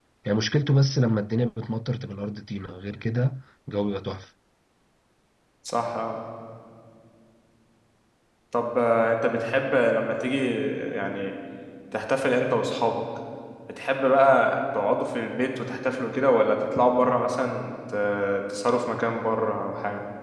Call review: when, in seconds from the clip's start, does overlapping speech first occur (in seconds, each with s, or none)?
none